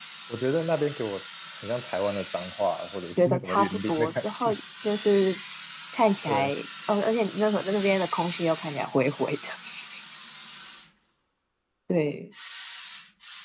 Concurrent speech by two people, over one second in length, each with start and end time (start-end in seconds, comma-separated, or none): 3.2-4.5